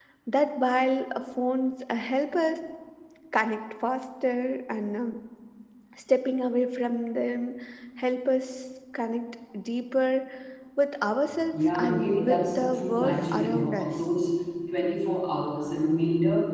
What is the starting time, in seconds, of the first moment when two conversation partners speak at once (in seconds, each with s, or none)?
11.5 s